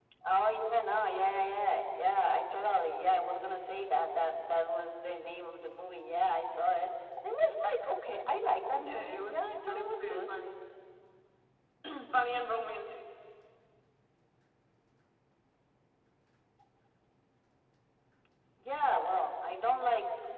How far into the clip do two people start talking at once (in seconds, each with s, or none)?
8.7 s